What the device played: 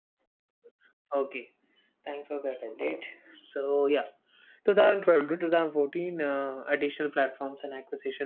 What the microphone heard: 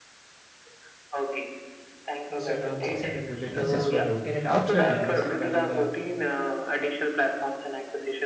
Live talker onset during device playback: 2 s

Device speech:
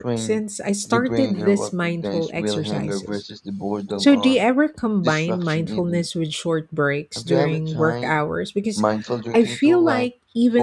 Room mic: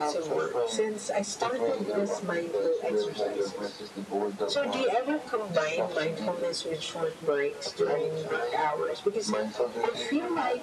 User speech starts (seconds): none

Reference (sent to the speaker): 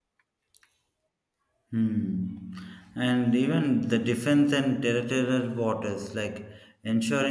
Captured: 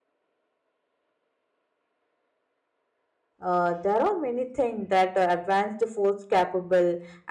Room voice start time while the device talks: 3 s

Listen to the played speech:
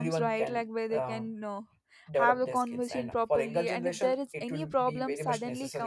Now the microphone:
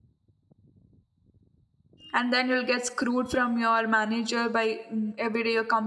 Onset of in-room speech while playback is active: 2 s

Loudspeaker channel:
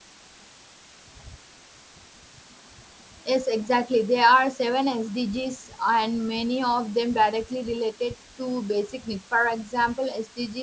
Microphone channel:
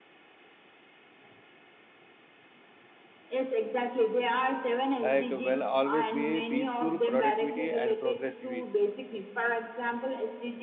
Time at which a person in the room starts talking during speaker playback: 5 s

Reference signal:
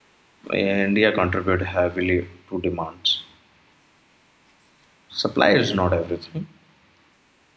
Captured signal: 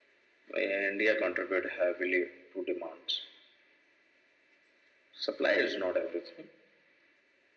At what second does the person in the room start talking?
none

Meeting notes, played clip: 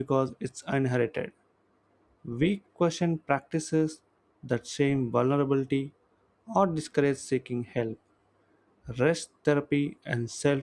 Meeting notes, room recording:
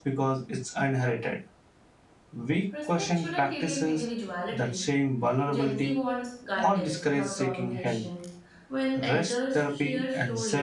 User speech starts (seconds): 3 s

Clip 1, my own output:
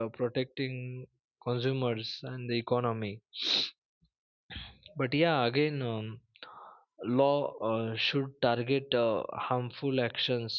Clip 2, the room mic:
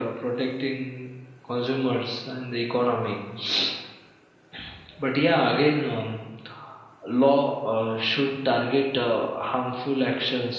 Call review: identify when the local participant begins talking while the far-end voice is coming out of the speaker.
none

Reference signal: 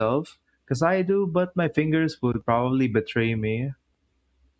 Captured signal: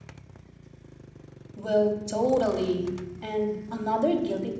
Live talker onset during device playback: 2 s

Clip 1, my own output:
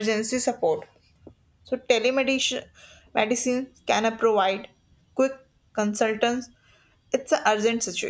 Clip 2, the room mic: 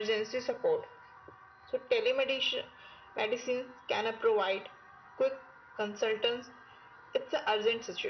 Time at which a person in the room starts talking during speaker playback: none

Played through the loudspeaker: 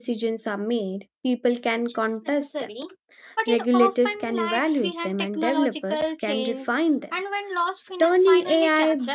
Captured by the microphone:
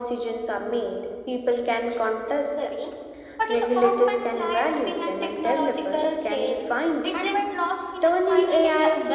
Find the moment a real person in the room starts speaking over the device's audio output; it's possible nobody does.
7 s

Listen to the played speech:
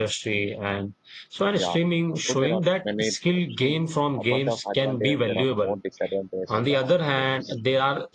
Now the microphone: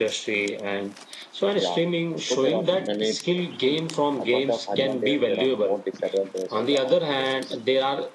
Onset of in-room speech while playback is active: none

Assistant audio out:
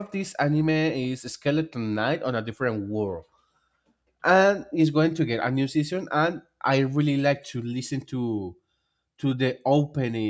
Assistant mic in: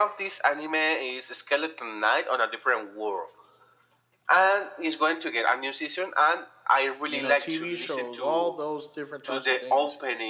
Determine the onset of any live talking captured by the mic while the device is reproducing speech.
7 s

